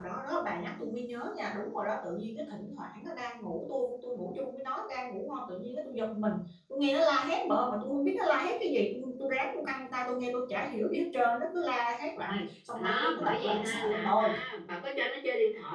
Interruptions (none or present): present